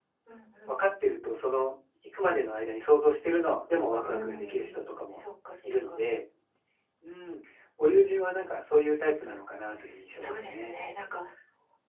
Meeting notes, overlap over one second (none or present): present